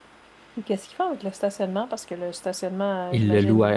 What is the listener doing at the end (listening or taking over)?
taking over